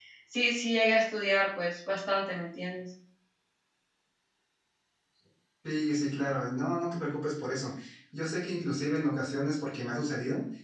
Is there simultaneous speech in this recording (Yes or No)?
No